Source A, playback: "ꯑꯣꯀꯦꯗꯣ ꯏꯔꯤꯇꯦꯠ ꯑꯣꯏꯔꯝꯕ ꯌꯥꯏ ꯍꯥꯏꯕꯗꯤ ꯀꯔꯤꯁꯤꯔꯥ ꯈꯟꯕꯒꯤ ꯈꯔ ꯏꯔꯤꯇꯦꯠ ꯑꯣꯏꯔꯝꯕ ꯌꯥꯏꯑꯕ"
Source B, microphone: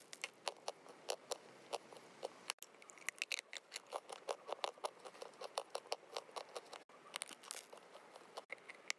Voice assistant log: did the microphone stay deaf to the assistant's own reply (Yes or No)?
Yes